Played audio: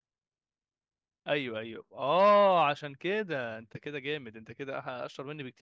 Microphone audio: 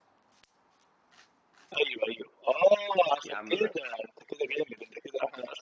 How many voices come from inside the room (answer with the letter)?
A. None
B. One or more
B